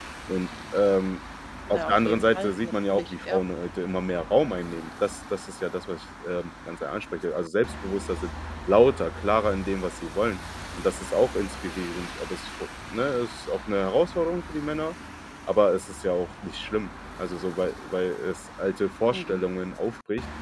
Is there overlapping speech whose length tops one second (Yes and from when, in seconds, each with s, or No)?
Yes, from 1.7 s